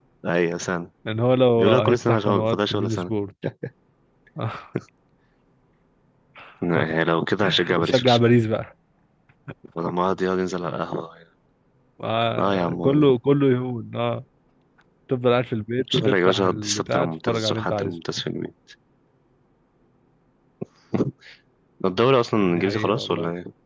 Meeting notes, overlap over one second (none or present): present